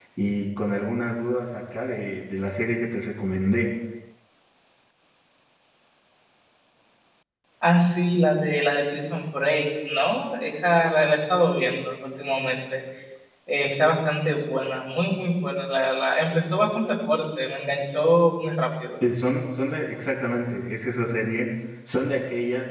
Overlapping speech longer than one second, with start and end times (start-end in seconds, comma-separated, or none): none